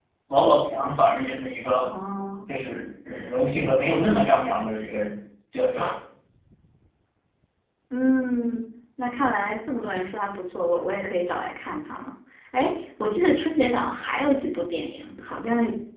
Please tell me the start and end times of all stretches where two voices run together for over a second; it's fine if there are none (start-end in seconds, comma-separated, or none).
none